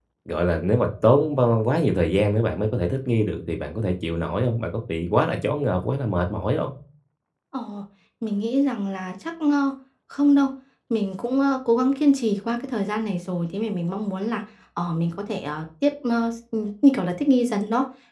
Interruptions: none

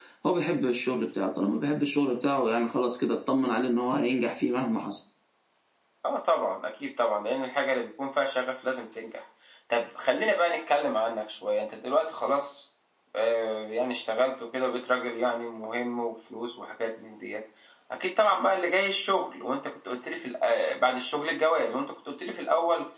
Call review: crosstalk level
none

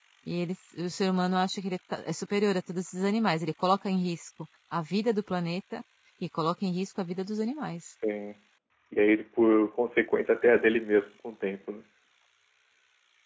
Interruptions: none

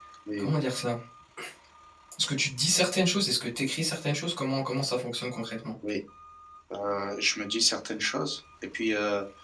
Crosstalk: none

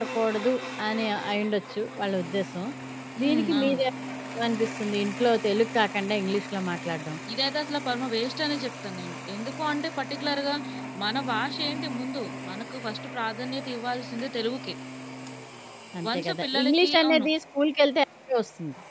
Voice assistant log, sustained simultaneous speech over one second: present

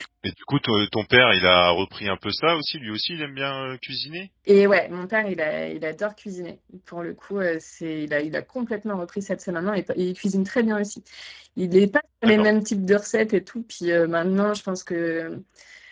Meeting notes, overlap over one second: none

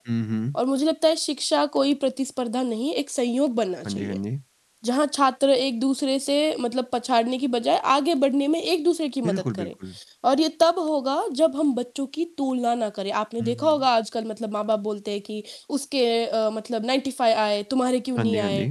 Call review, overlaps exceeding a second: none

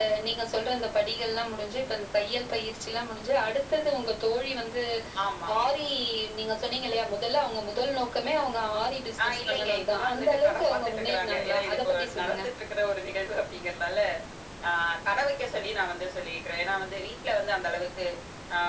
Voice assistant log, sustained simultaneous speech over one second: present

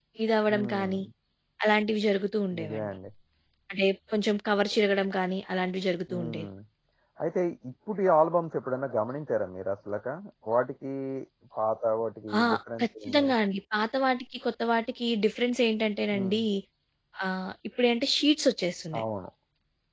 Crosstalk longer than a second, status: none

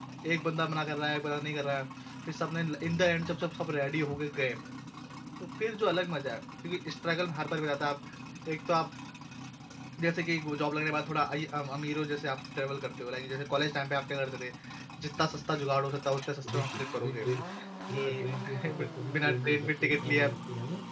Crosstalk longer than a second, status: present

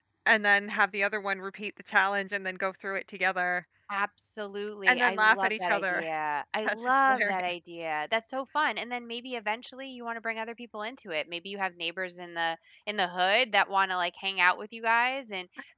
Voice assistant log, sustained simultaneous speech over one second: present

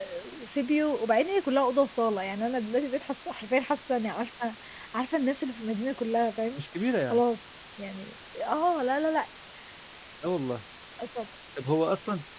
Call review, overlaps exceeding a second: none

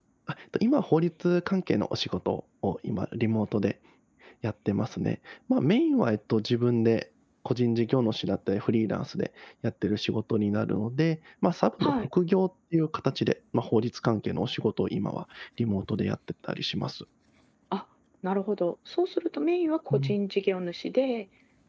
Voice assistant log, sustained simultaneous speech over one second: none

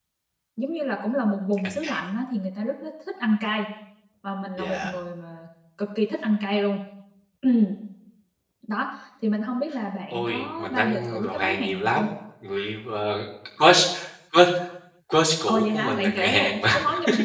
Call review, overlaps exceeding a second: present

